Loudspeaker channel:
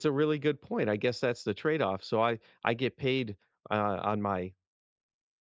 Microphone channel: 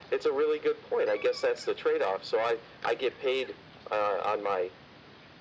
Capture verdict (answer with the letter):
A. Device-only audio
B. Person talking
A